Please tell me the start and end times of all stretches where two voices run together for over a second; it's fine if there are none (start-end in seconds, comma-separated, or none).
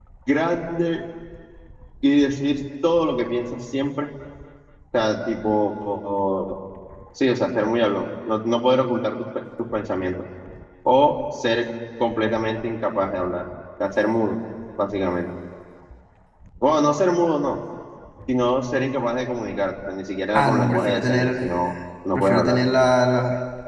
20.3-21.6